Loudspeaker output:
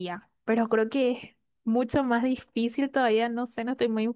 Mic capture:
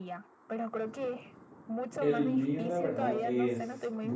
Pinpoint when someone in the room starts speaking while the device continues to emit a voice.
2.0 s

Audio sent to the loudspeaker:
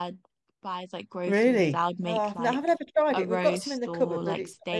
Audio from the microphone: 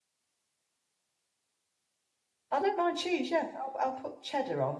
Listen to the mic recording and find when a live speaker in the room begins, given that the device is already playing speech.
2.5 s

